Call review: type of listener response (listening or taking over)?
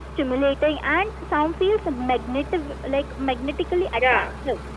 taking over